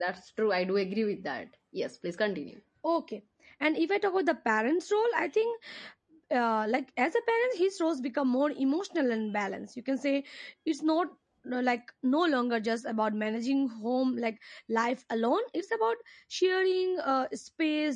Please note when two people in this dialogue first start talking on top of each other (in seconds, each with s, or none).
none